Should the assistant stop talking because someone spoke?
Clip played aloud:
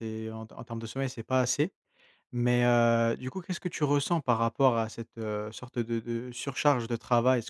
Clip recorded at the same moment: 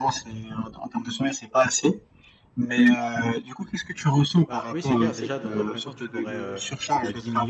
Yes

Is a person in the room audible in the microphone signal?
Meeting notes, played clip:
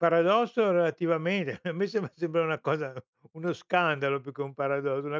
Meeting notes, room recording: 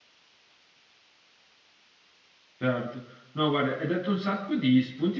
Yes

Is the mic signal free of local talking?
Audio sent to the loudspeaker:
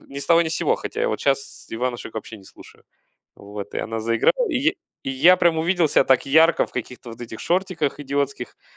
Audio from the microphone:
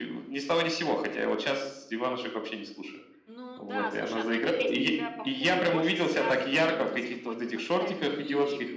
No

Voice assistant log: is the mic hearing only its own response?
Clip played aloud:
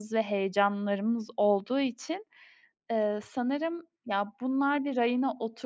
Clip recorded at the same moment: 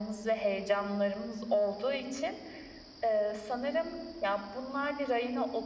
Yes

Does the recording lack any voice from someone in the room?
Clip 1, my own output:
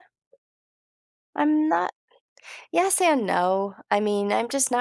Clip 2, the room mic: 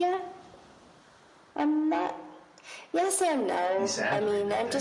No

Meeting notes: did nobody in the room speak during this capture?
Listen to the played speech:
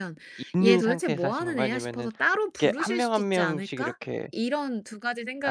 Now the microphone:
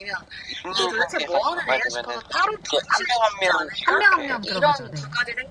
No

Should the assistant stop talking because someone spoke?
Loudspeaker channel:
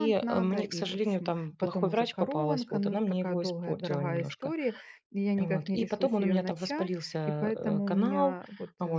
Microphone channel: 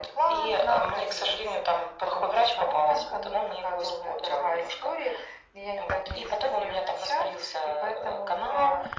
No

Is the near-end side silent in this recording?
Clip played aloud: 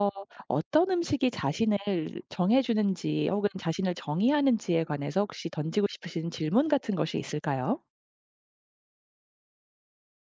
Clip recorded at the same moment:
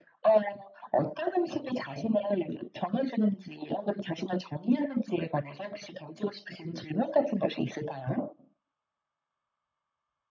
Yes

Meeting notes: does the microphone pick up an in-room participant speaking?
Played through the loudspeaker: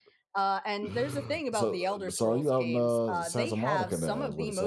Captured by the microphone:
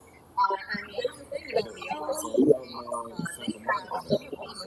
Yes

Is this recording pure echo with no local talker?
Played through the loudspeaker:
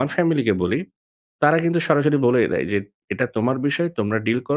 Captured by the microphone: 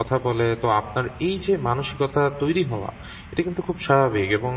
No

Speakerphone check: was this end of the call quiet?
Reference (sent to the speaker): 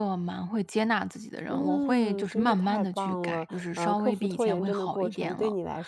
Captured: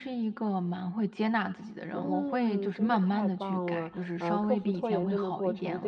Yes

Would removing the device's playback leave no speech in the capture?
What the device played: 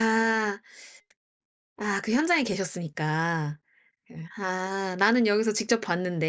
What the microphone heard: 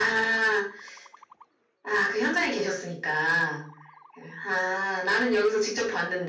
Yes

